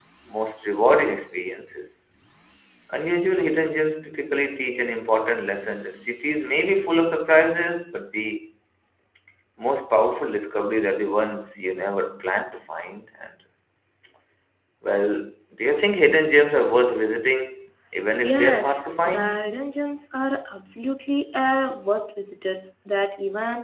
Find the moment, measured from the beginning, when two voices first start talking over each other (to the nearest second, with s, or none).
18 s